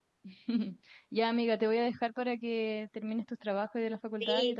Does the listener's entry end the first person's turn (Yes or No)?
Yes